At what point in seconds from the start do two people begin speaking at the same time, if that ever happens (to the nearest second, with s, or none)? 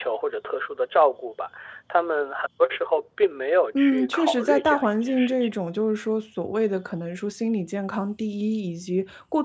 4 s